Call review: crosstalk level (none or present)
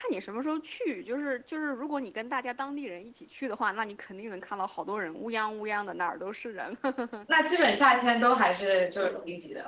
none